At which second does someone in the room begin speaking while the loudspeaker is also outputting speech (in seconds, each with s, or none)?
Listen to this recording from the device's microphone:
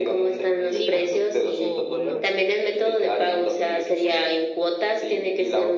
0.7 s